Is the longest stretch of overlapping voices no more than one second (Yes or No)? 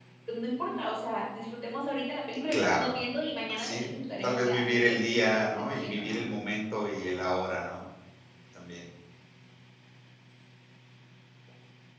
No